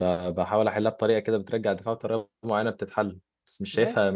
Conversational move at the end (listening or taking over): taking over